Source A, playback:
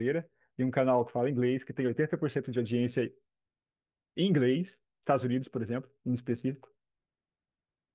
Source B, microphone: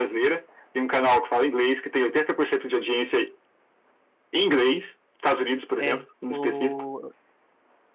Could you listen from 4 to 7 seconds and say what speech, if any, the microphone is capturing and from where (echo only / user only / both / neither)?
both